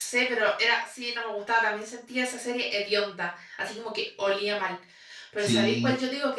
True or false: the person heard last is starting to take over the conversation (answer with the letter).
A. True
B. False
B